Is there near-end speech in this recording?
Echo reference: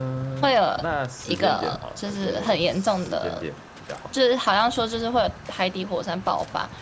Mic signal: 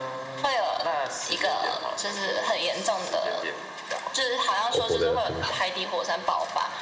Yes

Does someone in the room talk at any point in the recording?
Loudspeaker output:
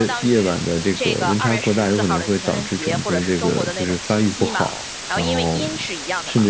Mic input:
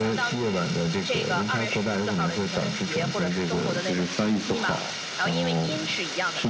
No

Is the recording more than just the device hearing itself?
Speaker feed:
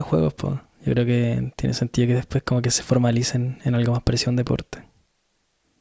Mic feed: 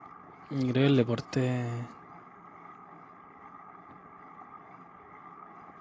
Yes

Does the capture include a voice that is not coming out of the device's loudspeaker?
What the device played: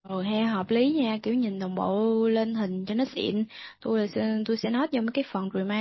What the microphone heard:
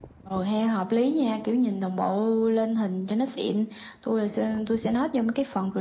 No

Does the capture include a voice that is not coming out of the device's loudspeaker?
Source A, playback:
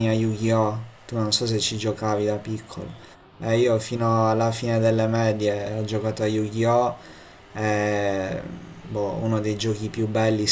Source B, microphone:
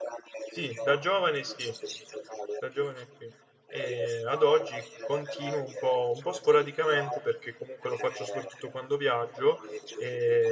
Yes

